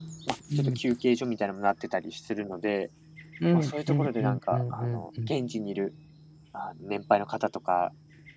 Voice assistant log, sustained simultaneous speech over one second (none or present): present